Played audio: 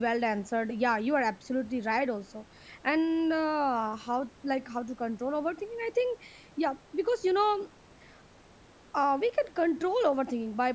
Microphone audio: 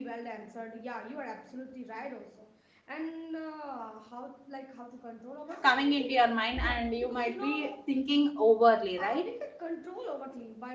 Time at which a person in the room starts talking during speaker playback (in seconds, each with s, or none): 5.6 s